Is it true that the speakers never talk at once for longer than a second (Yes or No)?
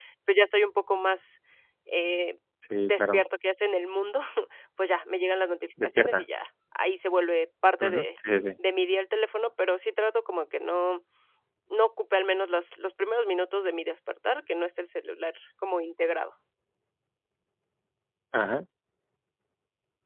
Yes